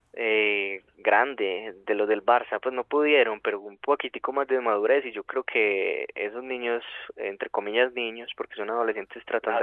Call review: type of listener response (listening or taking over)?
taking over